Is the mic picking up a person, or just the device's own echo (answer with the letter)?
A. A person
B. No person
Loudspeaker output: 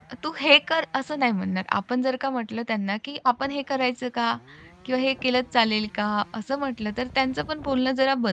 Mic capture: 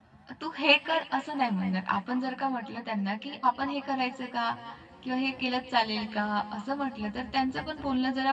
B